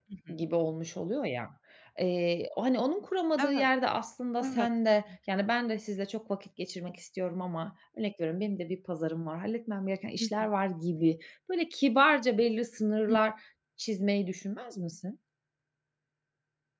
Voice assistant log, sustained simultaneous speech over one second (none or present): none